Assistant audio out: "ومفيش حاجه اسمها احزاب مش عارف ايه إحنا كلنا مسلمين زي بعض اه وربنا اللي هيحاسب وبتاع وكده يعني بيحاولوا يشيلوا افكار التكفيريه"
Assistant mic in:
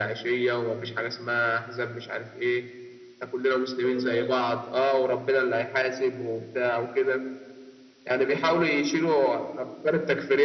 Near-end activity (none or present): none